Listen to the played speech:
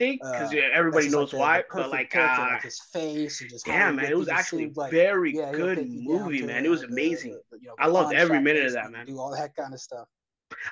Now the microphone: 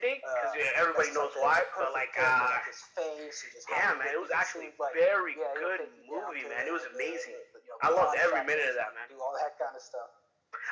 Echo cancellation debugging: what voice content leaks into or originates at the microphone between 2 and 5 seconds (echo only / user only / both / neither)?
echo only